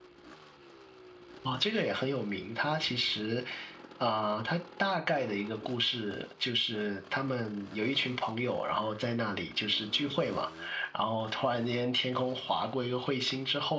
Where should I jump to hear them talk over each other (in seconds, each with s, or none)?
none